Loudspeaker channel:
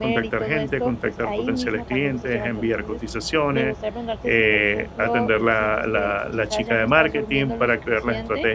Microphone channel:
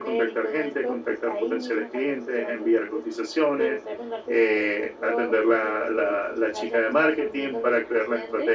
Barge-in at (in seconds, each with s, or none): none